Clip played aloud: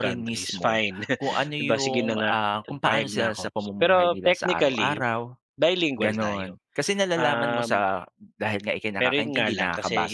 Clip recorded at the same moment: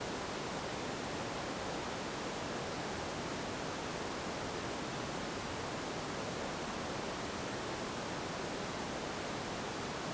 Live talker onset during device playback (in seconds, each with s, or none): none